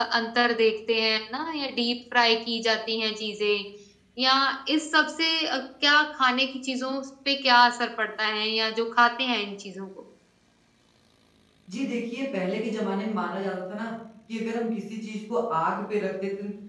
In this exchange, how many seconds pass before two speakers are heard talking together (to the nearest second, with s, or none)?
none